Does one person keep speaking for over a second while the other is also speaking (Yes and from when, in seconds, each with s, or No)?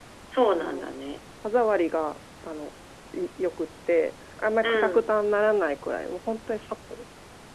No